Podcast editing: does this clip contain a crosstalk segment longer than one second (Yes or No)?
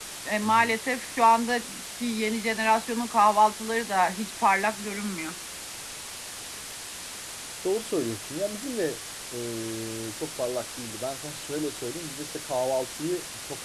No